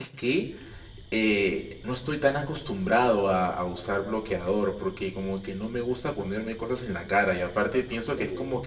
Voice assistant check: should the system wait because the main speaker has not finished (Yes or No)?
Yes